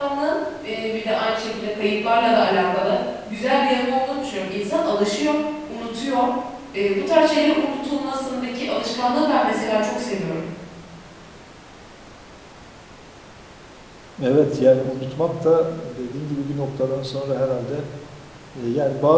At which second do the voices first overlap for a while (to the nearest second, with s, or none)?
none